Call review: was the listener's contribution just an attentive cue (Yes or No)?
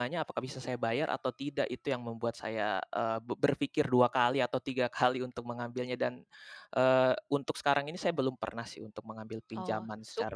No